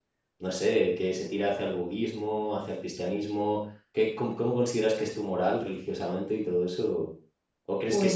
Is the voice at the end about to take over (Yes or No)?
No